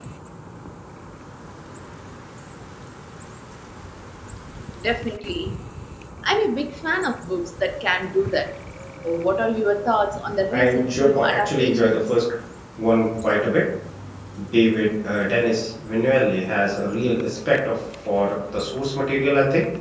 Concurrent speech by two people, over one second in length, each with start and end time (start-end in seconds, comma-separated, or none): 10.5-12.1